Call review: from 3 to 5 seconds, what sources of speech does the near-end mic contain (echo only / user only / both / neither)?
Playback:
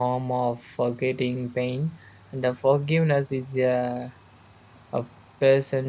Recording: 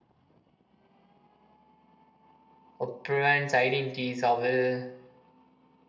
user only